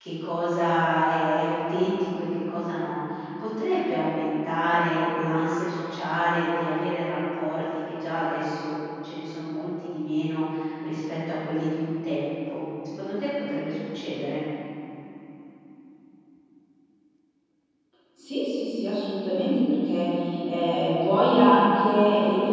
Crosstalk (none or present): none